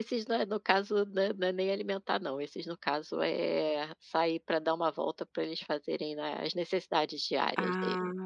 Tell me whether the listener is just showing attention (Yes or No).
No